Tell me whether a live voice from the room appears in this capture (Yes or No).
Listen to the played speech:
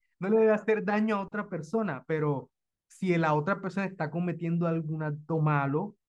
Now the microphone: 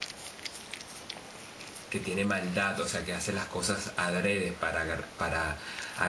Yes